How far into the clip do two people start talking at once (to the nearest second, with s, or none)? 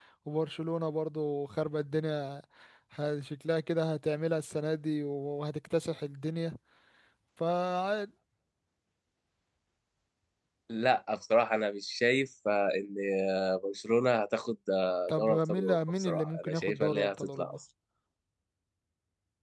15 s